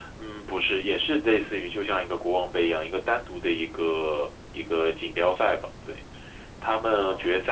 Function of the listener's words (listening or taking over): listening